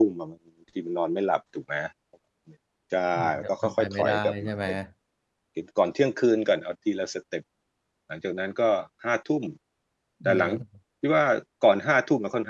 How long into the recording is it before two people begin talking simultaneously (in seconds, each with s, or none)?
3.2 s